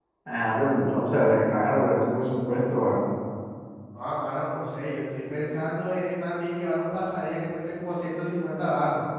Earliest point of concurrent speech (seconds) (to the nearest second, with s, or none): none